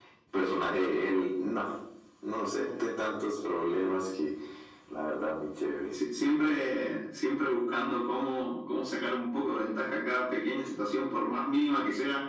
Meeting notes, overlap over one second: none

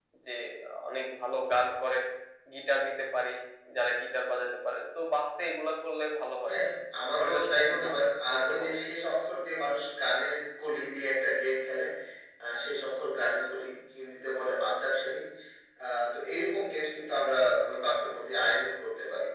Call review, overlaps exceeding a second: present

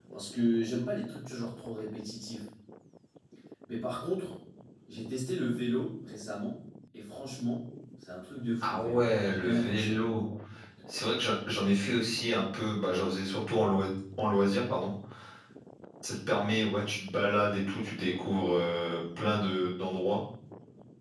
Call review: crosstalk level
present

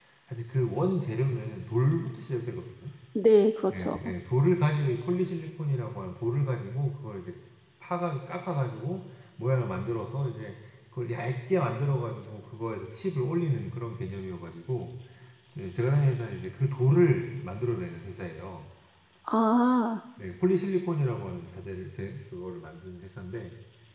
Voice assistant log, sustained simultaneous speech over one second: none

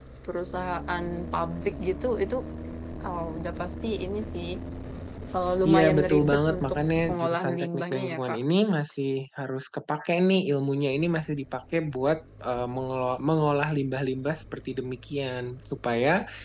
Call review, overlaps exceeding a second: present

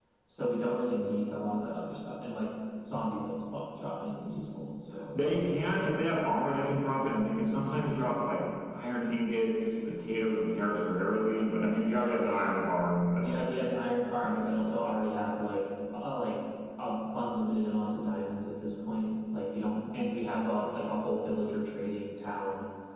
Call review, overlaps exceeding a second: none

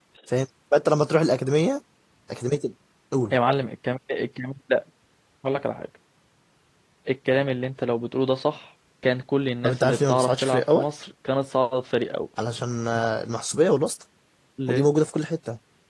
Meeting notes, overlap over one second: present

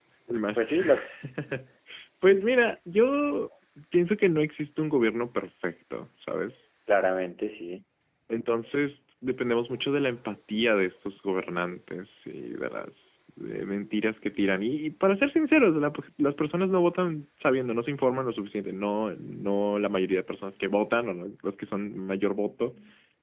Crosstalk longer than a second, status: none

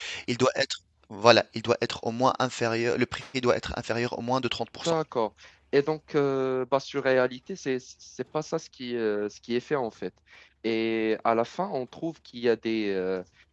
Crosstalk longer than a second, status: none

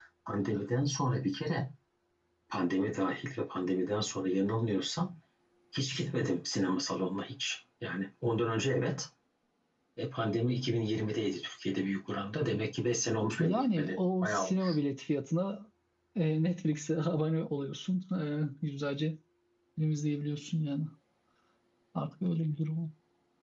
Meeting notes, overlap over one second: present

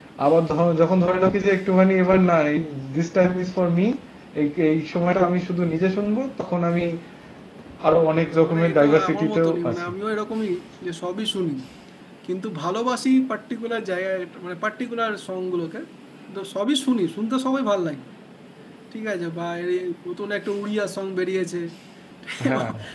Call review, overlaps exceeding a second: present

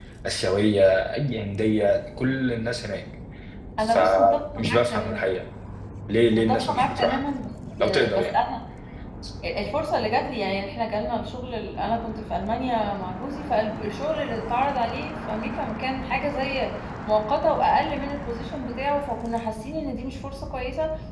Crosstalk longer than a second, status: present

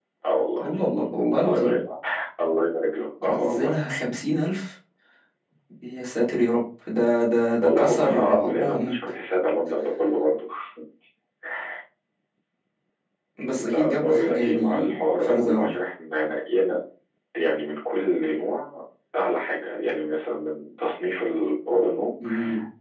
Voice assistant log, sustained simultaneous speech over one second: present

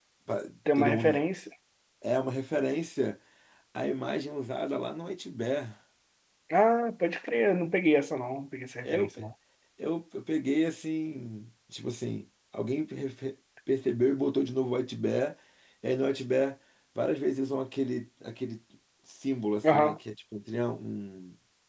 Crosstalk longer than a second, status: none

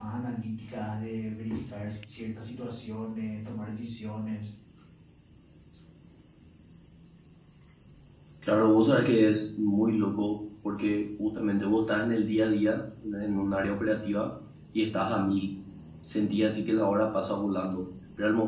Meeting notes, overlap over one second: none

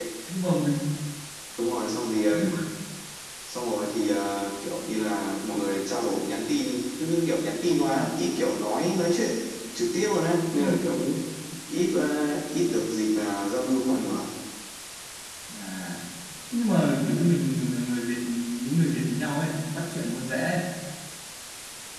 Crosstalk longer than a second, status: none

